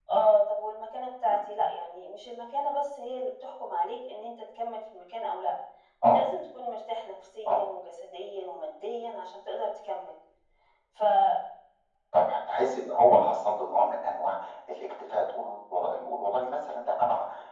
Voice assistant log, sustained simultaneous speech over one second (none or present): none